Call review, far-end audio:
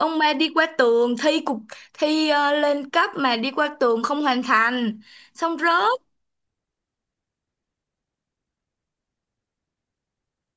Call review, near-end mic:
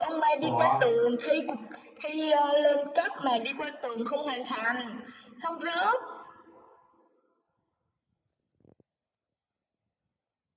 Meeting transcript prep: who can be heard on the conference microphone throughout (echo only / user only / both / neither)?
both